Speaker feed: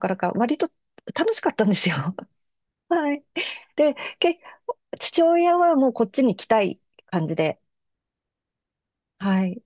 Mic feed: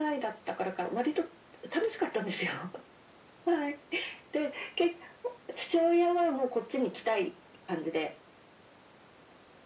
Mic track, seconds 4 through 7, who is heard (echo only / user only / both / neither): echo only